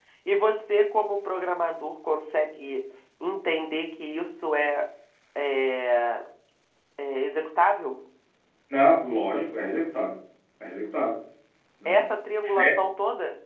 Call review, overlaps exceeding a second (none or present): none